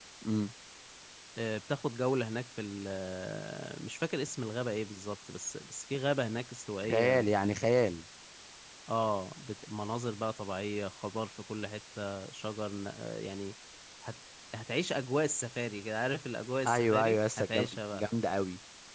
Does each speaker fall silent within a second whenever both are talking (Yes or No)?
No